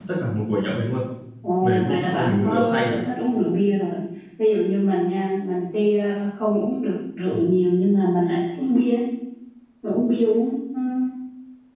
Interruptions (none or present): present